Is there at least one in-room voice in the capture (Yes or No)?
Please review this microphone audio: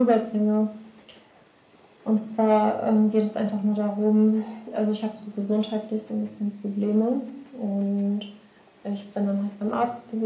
No